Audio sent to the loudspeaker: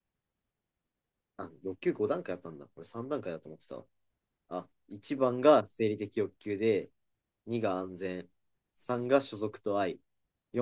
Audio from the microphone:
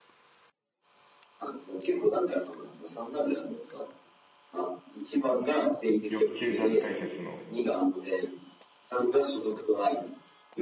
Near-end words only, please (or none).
欲求段階説の、